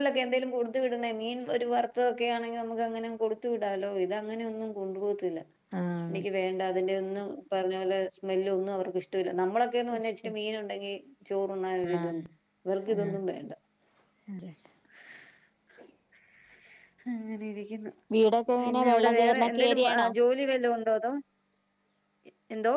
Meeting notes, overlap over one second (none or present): present